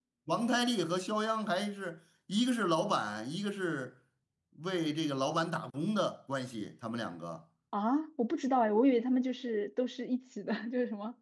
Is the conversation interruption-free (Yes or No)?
Yes